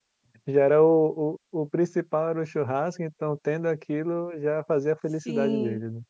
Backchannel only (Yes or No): No